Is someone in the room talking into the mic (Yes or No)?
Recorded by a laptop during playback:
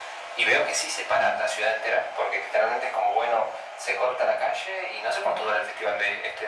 No